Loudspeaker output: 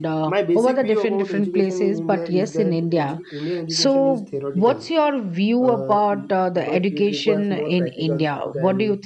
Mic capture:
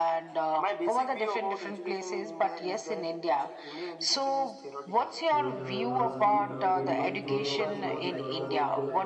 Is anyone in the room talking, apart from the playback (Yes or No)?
Yes